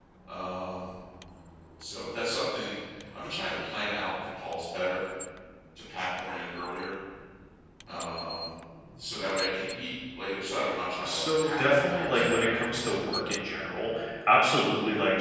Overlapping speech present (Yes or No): Yes